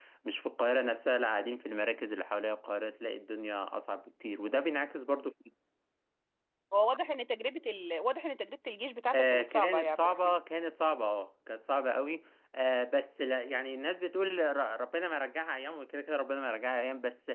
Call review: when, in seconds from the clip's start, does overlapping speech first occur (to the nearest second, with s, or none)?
9 s